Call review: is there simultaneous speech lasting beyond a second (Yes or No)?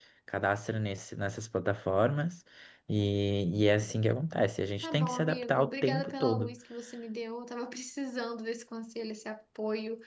Yes